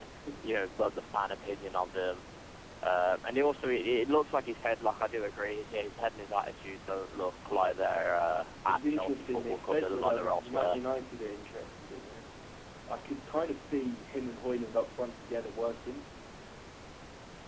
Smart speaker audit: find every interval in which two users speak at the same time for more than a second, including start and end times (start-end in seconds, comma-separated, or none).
8.7-10.8